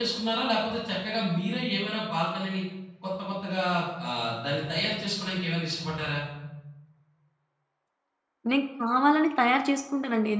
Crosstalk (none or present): none